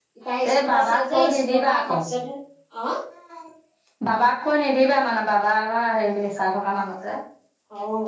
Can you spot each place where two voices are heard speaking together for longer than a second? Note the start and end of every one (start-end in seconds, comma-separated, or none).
0.5-2.0